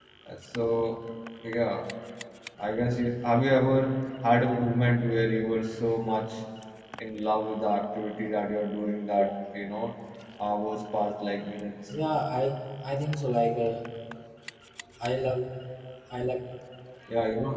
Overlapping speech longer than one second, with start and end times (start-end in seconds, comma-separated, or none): none